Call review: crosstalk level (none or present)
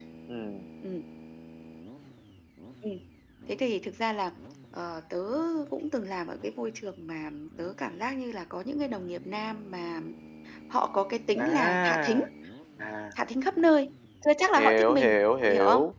present